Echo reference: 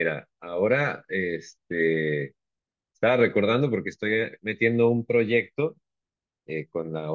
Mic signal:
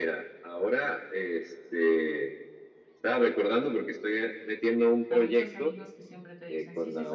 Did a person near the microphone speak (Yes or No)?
Yes